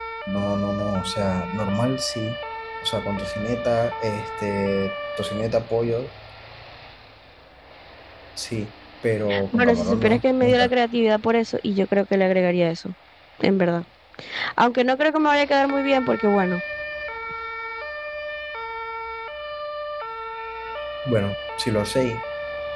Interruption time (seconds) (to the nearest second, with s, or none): 9 s